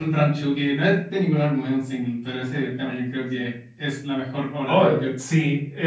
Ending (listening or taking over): taking over